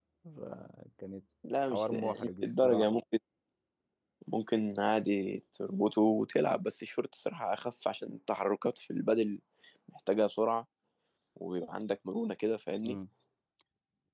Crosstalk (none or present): present